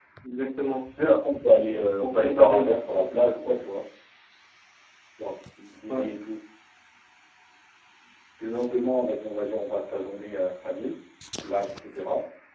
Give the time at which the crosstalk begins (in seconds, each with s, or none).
2.0 s